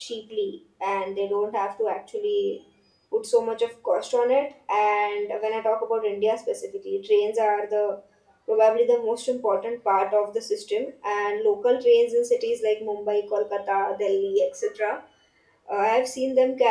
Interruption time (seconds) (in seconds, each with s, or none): none